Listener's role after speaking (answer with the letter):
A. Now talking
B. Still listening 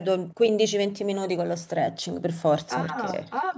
A